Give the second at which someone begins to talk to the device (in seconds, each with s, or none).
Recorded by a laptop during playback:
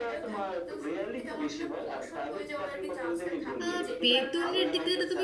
3.6 s